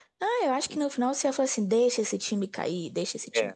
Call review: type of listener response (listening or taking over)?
taking over